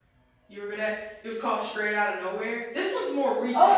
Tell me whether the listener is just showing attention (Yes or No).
No